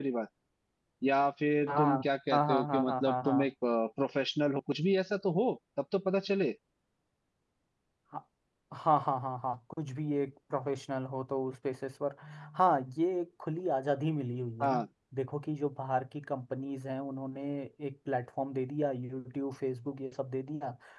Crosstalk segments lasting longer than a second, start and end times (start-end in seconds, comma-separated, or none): 1.7-3.5